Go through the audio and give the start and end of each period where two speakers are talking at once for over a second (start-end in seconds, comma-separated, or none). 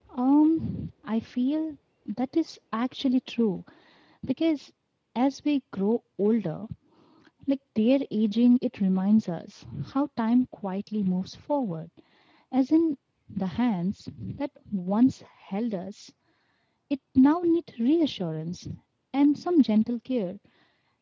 none